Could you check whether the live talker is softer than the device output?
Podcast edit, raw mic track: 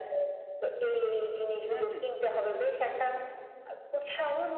Yes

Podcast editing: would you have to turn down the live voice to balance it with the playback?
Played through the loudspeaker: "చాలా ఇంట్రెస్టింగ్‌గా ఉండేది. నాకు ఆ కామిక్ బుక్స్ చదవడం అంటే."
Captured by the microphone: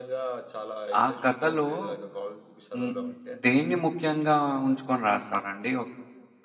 Yes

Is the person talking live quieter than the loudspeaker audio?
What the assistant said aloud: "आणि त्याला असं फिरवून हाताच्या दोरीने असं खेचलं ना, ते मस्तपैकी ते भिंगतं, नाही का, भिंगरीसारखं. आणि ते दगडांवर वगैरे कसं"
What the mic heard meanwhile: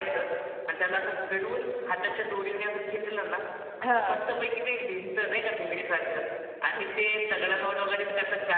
No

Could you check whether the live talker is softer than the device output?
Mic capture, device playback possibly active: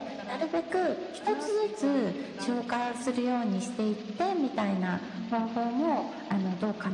Yes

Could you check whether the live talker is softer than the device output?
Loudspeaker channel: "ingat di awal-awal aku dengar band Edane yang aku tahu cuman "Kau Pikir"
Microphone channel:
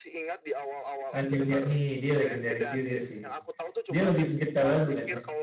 No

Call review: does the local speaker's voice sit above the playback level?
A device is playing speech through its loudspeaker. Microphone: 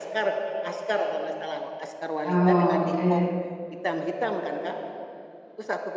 Yes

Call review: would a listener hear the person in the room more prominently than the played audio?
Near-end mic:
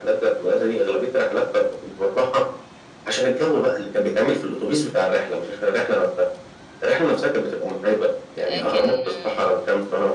No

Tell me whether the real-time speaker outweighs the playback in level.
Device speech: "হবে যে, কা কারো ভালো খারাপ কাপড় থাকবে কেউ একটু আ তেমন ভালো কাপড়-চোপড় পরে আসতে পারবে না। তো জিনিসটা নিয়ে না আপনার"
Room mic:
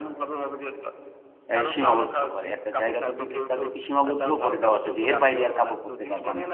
Yes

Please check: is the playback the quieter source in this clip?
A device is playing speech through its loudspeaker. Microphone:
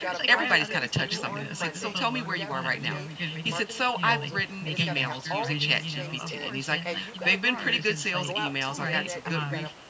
No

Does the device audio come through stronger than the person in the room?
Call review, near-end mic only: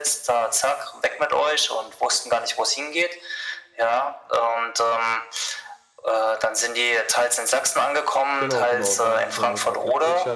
Yes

